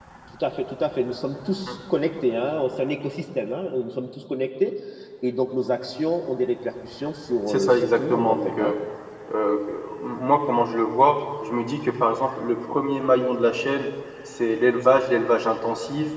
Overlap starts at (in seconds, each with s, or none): 7.5 s